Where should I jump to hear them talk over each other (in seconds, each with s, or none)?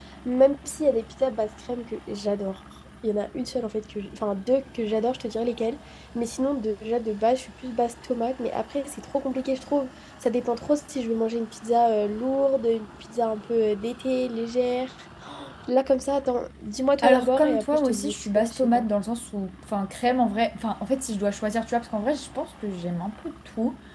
17.0 s